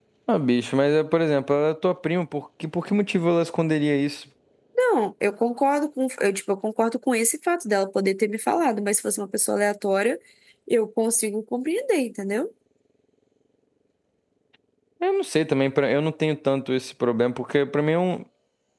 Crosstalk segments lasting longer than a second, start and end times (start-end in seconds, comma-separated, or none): none